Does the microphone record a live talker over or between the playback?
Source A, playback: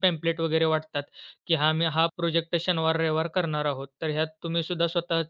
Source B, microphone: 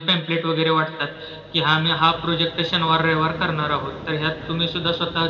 No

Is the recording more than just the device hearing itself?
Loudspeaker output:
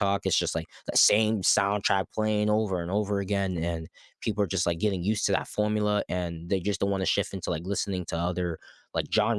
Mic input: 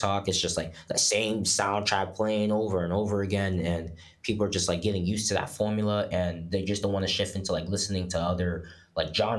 No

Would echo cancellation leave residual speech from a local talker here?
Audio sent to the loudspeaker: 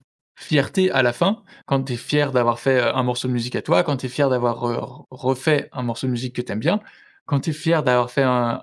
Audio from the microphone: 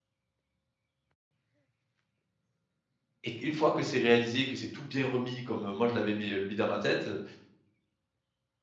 Yes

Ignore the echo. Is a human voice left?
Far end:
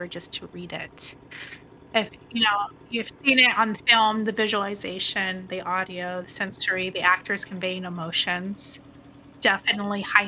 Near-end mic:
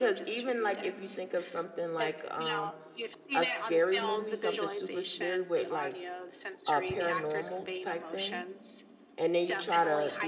Yes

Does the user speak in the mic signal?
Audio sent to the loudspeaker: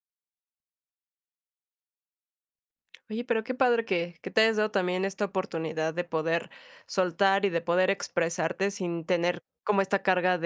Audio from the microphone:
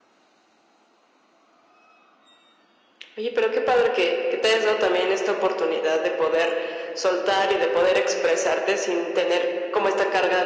No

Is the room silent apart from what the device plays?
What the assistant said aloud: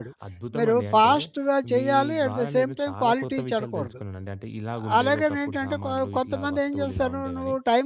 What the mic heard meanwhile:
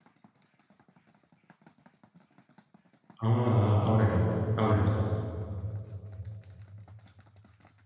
No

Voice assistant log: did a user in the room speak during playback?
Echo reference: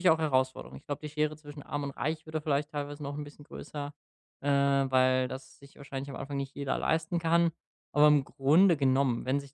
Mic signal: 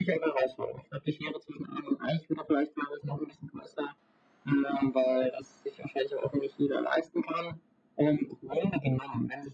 No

